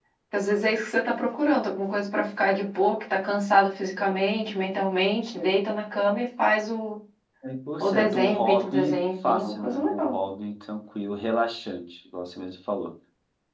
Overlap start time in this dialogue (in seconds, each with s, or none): 7.8 s